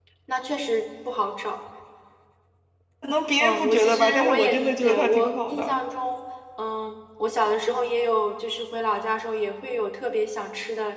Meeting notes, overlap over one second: present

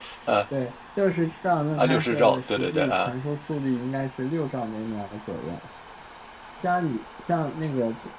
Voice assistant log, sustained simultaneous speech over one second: present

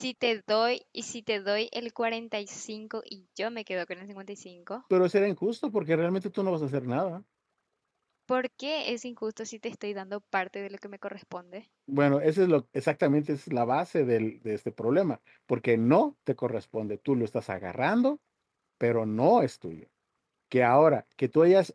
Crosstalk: none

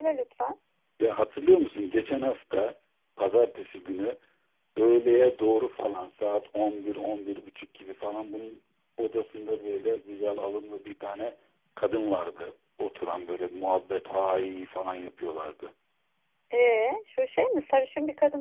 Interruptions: none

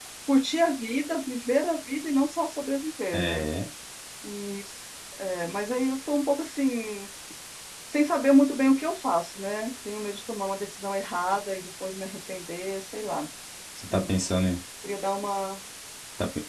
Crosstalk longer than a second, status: none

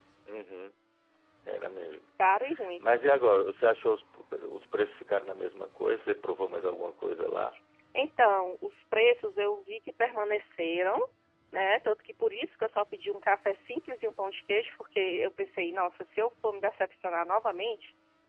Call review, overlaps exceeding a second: none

